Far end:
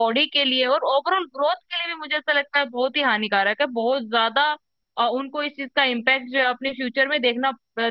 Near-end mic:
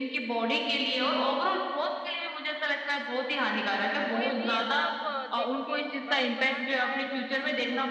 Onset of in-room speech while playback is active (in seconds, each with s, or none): 4.1 s